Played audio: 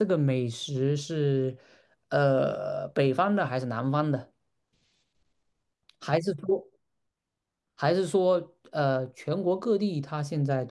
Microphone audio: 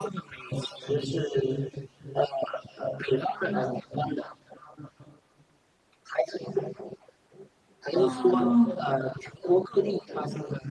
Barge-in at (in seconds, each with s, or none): 7.9 s